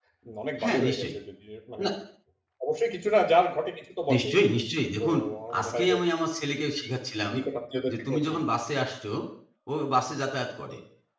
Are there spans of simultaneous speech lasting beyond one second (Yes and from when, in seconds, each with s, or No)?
No